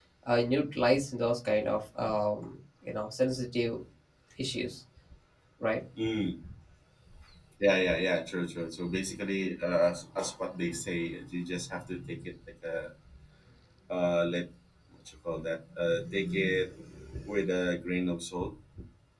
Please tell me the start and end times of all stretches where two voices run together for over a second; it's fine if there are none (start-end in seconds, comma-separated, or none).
none